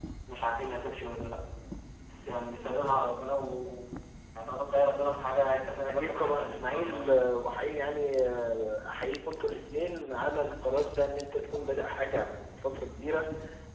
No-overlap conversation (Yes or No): No